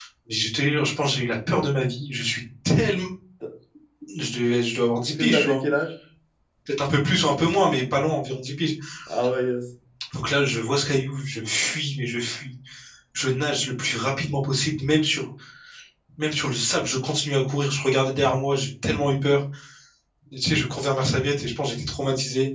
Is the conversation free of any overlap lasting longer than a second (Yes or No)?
Yes